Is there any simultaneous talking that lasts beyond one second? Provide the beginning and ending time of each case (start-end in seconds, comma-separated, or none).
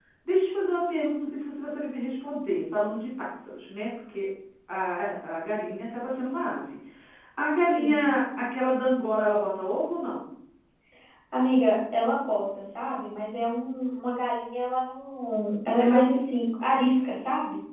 none